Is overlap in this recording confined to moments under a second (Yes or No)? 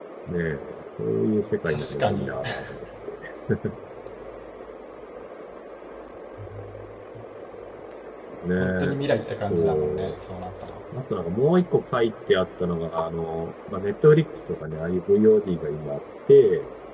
No